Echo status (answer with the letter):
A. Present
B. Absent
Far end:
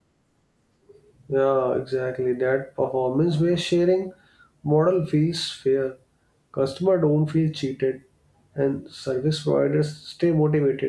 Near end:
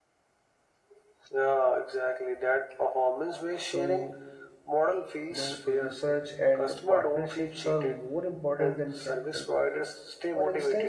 A